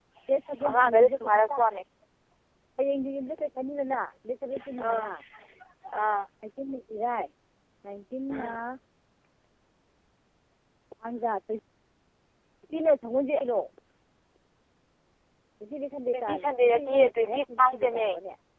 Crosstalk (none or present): present